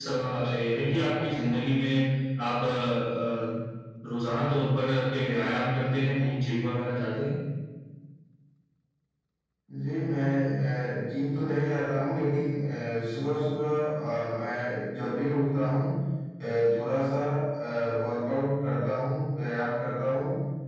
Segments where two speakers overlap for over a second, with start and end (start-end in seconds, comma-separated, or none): none